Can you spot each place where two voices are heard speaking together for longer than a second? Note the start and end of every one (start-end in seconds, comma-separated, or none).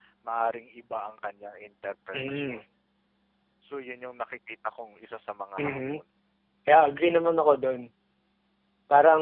none